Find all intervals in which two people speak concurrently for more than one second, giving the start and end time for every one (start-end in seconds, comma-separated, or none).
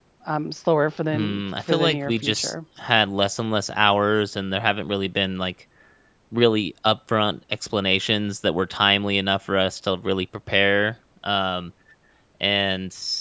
1.1-2.5